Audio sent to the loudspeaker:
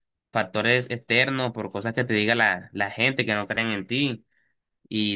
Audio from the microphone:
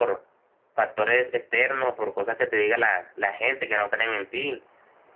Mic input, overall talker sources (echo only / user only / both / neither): echo only